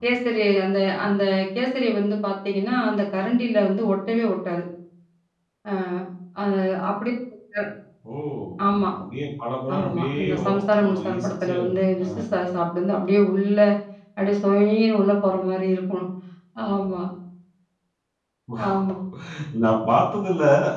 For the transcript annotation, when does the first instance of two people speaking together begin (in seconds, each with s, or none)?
9.8 s